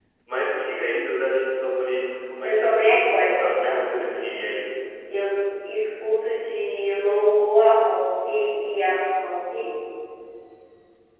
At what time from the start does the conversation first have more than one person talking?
2.4 s

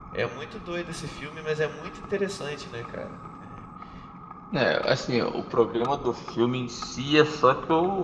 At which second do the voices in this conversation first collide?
none

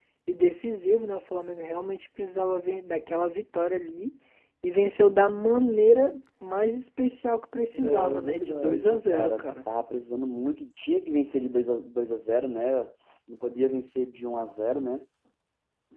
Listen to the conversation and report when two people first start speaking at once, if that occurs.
7.7 s

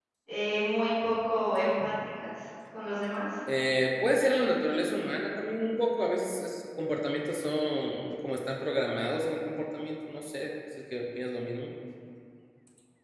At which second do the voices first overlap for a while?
none

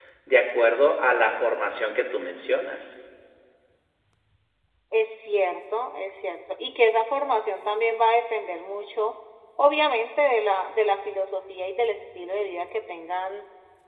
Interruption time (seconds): none

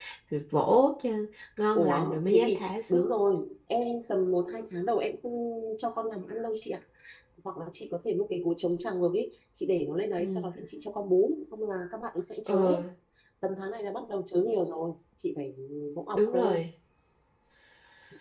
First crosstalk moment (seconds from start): 1.7 s

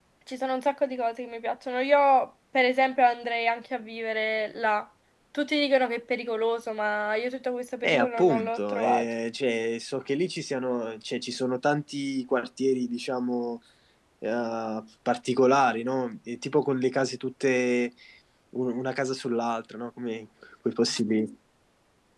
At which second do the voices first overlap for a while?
7.8 s

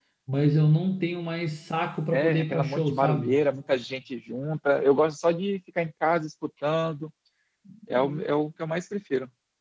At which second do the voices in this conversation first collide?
2.1 s

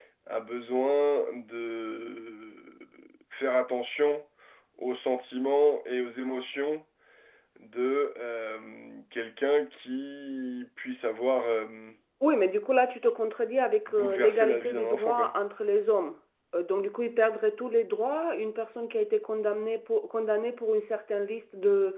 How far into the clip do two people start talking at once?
13.9 s

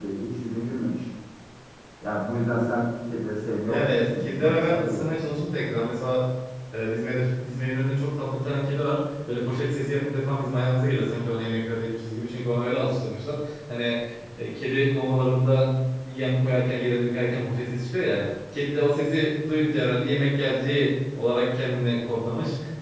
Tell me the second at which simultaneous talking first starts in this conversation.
3.7 s

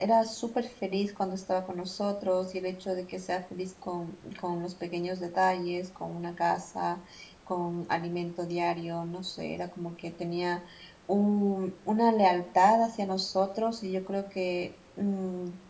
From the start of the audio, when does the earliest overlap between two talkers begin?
none

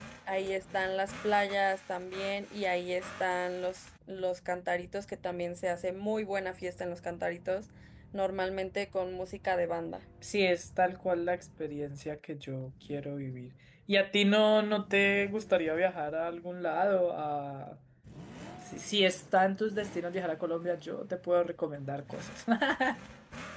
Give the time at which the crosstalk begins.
none

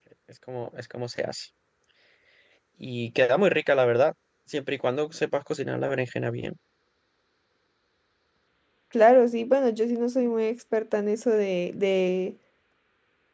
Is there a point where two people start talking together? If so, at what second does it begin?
none

